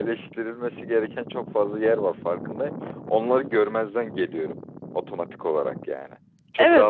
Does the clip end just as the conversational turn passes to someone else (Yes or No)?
Yes